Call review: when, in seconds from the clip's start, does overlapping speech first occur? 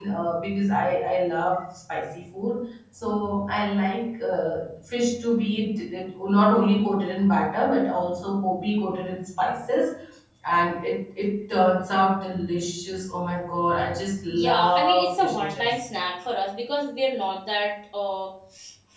14.3 s

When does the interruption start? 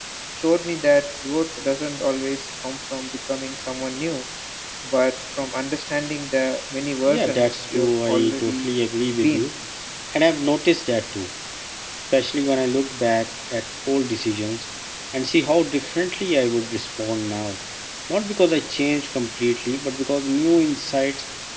7.1 s

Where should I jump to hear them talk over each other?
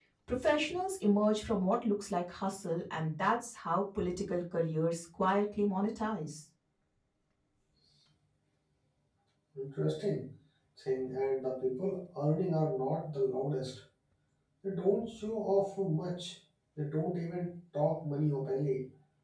none

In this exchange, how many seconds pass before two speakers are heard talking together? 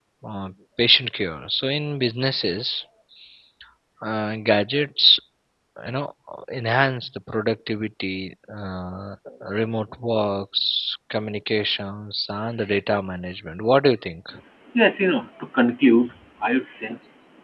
none

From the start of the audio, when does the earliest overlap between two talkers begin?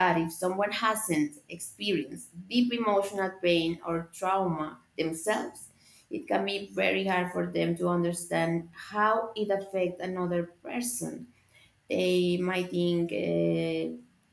none

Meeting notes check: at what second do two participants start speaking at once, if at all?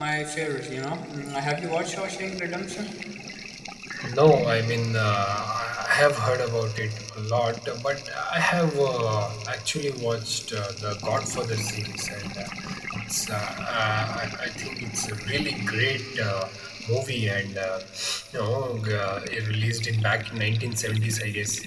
none

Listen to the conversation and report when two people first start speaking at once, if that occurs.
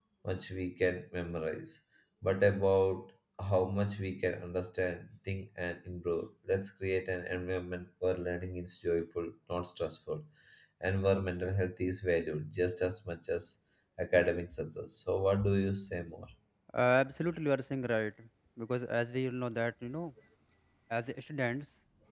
none

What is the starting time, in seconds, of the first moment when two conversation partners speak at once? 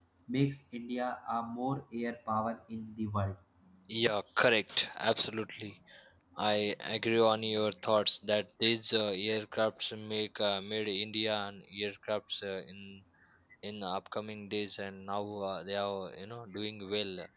none

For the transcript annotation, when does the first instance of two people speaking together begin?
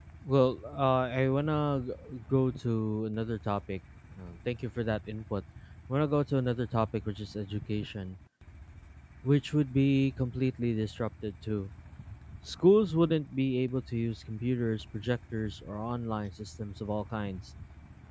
none

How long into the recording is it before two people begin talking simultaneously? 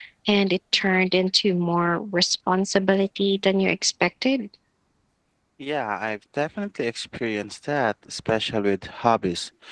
none

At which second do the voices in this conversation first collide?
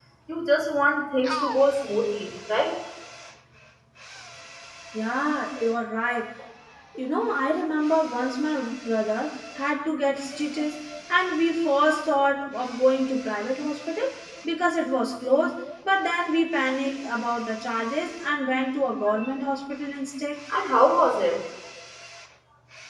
none

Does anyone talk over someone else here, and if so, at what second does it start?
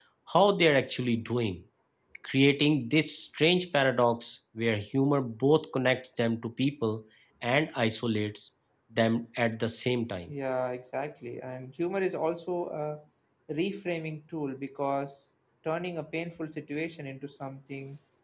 none

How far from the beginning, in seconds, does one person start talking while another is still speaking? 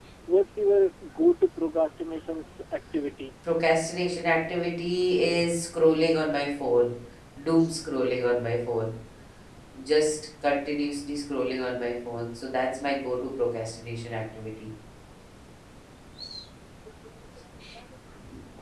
none

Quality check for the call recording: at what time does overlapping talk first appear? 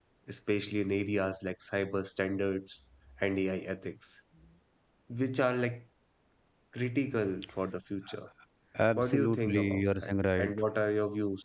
9.0 s

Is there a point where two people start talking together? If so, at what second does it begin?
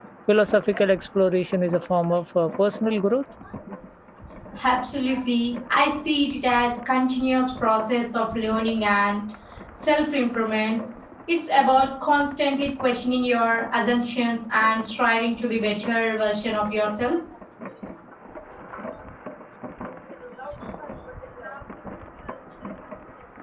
none

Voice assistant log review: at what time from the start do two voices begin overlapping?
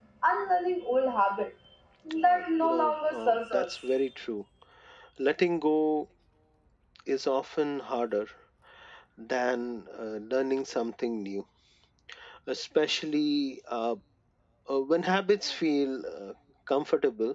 2.2 s

